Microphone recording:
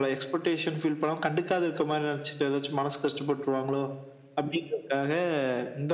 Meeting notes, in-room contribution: none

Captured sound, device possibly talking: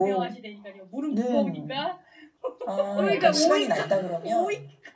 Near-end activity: present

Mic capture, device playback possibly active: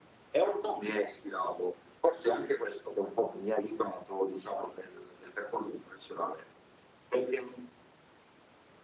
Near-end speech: none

